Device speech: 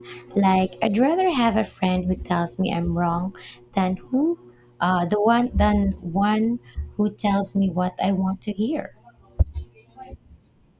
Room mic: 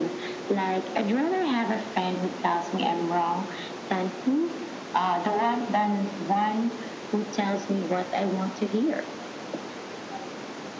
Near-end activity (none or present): none